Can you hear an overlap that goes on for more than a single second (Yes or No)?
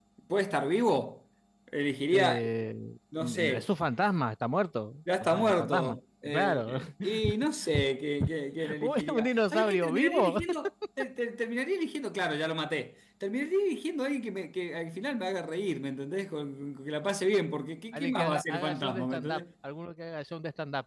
Yes